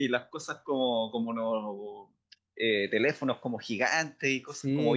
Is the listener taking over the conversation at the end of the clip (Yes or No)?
Yes